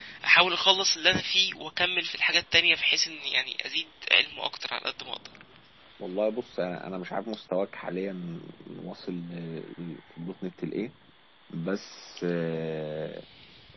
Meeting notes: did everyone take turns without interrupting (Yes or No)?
Yes